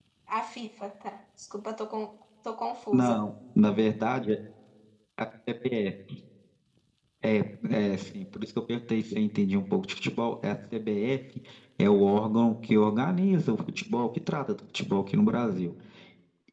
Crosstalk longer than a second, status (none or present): none